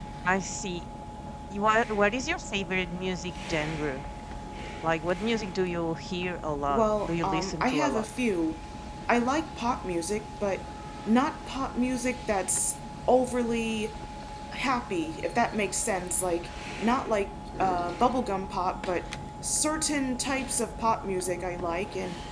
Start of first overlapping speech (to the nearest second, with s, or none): 7 s